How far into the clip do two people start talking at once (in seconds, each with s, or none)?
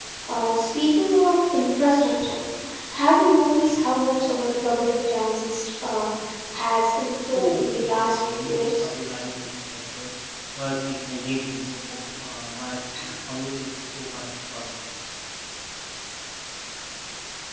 7.3 s